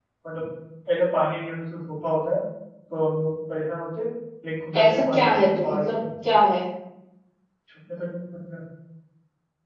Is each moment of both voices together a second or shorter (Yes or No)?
No